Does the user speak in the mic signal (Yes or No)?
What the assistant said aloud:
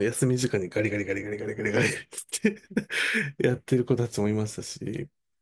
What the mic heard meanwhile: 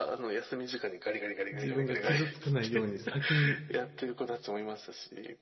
Yes